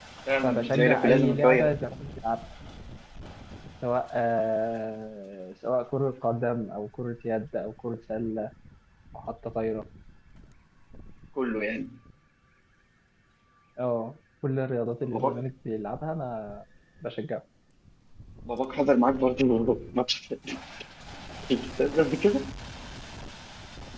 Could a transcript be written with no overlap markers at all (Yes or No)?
No